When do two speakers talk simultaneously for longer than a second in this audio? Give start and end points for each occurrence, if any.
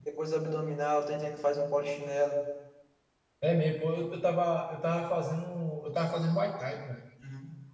none

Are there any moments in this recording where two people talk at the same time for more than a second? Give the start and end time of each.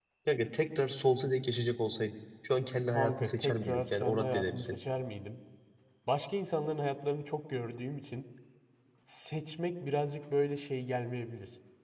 2.9-4.8

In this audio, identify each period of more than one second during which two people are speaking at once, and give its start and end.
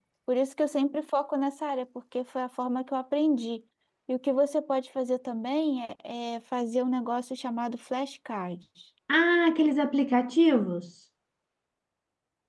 none

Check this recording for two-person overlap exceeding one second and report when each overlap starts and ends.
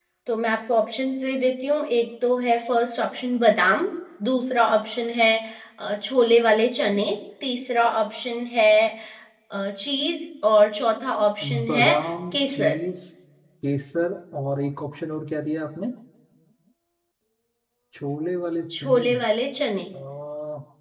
11.4-12.8

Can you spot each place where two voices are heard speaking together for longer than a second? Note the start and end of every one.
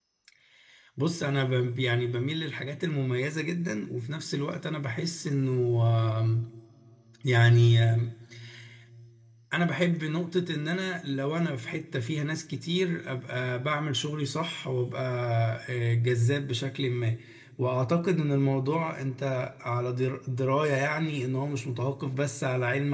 none

